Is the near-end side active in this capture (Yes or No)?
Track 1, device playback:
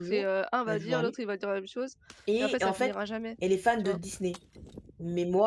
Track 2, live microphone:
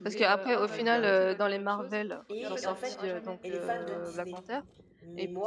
Yes